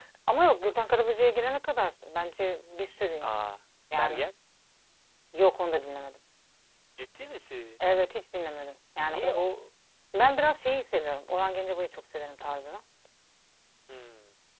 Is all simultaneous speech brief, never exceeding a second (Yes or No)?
Yes